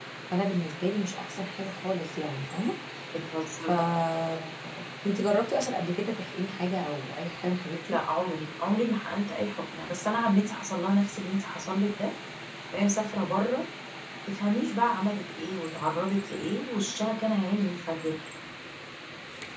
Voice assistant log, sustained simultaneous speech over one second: none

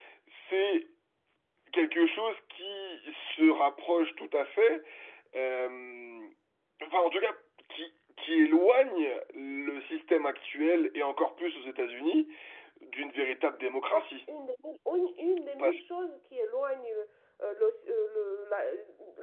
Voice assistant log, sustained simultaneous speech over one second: none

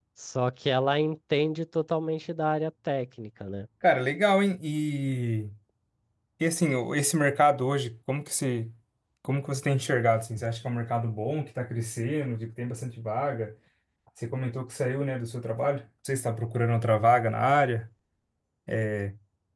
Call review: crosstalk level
none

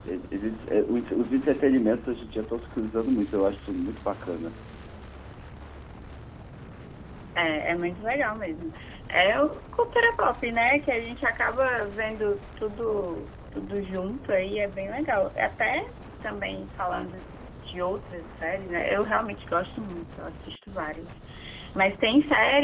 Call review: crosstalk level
none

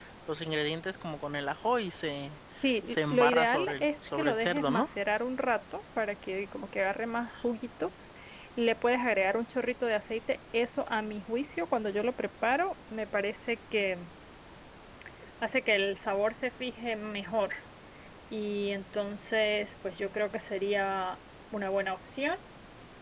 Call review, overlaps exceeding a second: present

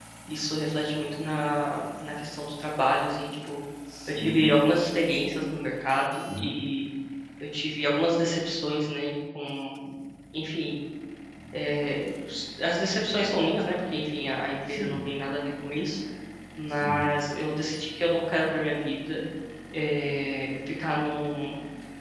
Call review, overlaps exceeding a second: none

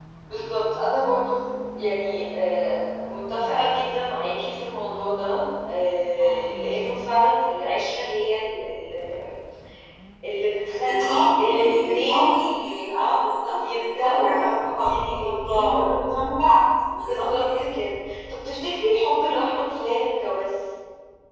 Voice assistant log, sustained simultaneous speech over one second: present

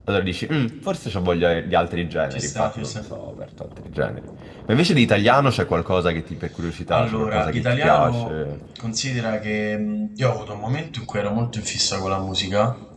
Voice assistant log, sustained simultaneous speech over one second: present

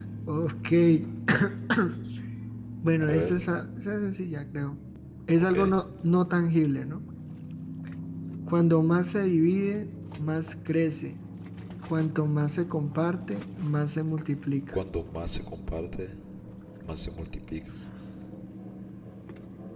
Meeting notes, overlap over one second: none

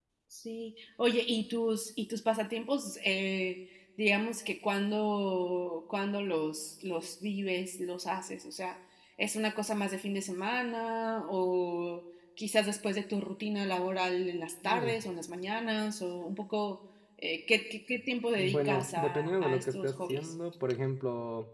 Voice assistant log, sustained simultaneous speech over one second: present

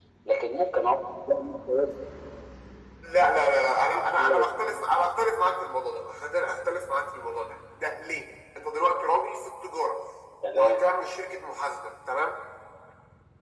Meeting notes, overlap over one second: none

